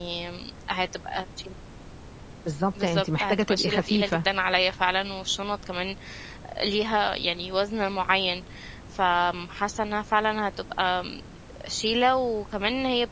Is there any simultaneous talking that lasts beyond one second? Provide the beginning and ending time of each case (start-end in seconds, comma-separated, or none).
2.8-4.2